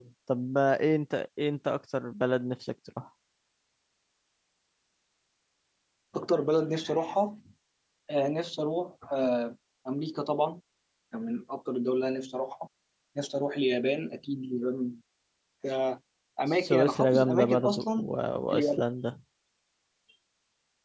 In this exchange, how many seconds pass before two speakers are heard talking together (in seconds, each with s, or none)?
16.5 s